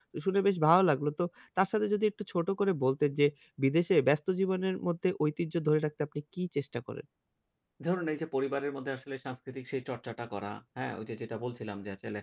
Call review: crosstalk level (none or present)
none